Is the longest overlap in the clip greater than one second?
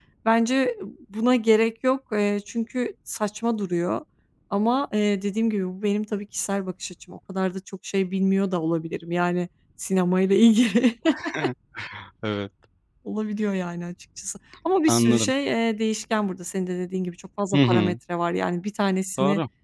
No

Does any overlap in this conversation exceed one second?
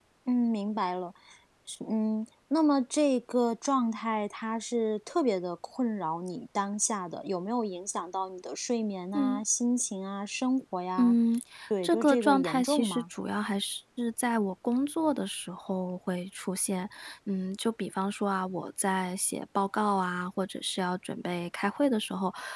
Yes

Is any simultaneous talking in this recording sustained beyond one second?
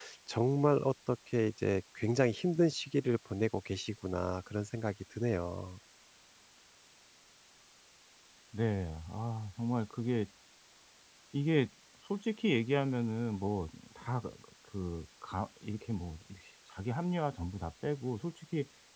No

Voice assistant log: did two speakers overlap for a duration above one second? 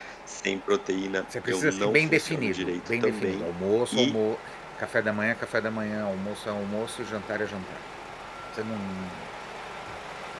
Yes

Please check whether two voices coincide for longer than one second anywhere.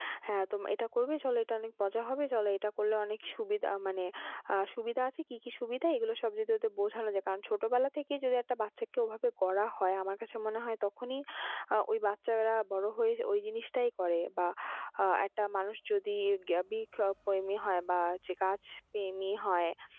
No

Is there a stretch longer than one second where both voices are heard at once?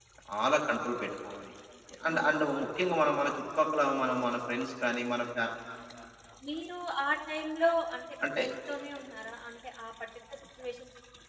No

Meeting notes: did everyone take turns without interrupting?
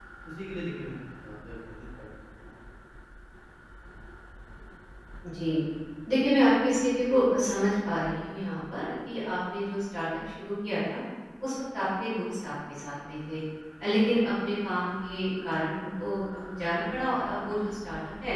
Yes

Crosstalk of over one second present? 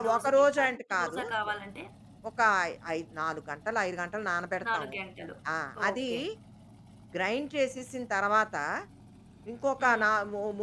Yes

